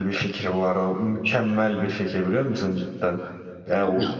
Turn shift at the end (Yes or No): No